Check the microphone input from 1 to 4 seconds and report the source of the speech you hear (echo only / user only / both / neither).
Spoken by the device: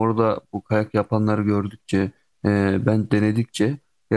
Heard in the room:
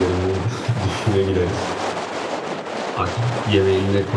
user only